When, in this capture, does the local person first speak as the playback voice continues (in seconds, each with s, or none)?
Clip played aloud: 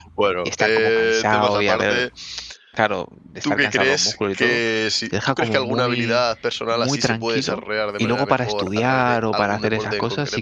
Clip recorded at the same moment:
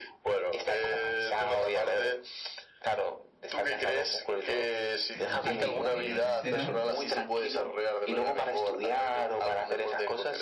5.1 s